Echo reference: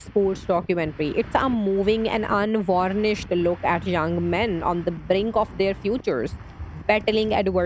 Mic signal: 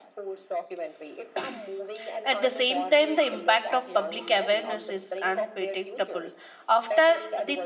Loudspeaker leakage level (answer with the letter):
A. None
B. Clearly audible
B